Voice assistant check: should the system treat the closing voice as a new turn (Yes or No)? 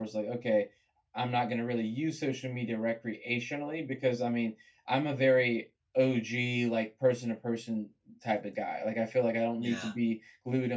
No